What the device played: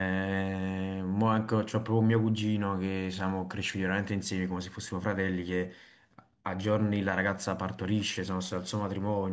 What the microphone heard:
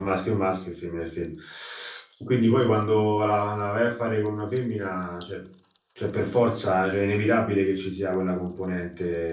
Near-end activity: present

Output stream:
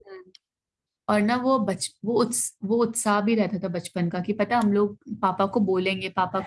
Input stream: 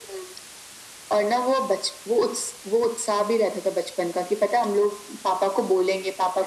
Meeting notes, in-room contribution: none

